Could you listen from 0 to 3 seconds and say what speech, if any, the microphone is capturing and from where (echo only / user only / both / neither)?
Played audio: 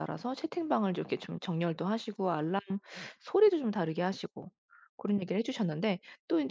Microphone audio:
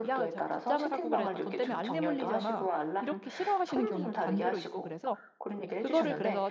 both